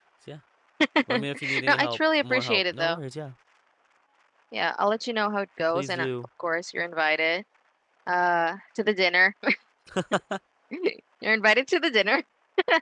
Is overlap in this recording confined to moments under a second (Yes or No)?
No